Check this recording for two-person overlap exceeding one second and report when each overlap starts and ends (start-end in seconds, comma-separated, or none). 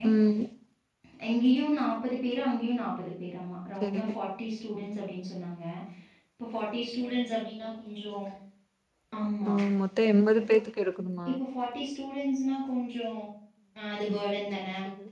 none